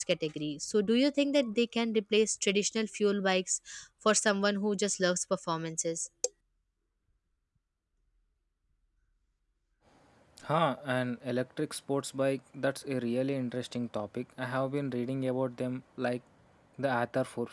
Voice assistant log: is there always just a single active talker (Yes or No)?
Yes